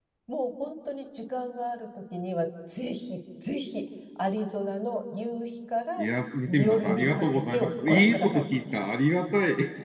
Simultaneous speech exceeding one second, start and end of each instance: 6.5-8.4

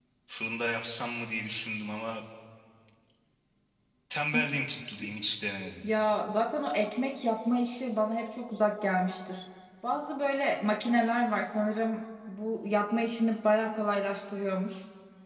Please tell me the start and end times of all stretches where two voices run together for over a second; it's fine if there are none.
none

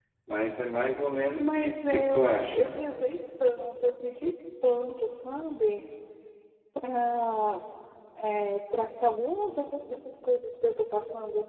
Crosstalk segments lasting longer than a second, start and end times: 1.4-2.7

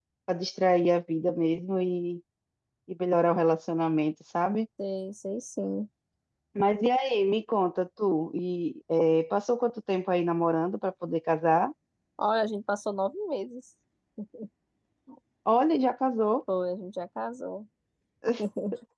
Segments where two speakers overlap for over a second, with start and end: none

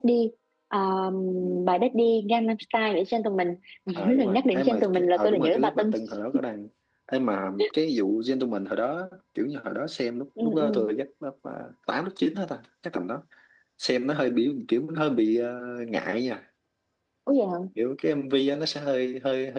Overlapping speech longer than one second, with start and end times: 4.0-5.9

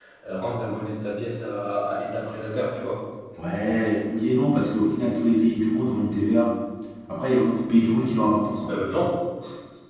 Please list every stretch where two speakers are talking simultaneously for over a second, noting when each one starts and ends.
none

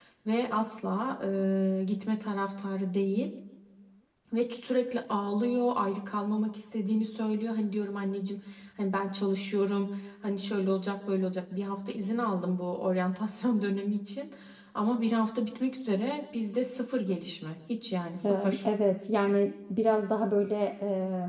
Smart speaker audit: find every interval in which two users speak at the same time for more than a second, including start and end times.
none

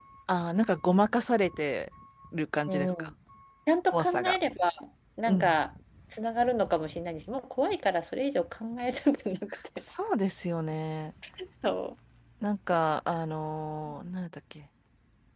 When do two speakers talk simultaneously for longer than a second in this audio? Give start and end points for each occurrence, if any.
none

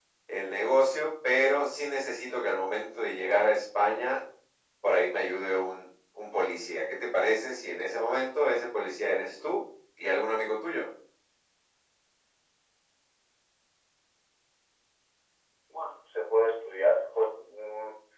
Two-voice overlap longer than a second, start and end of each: none

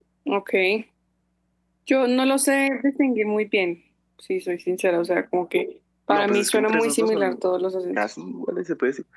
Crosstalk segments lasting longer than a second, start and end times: 6.1-7.4

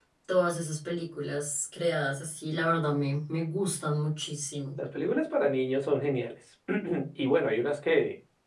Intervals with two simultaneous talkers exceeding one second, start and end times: none

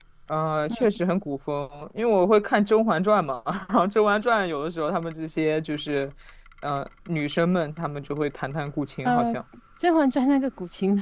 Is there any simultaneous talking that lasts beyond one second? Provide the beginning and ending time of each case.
none

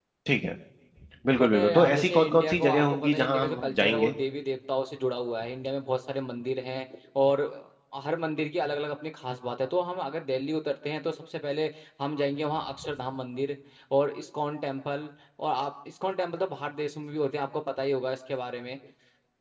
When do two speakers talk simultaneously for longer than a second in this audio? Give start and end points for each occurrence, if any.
1.4-4.1

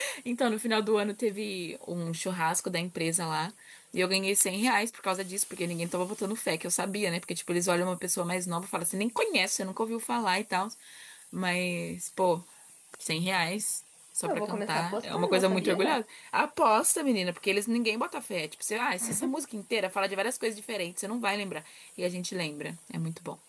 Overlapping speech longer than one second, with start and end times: 14.3-15.8

